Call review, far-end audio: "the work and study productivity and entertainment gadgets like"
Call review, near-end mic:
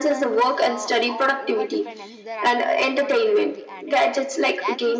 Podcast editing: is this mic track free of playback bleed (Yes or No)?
No